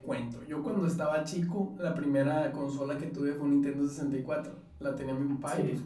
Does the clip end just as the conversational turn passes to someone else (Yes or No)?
No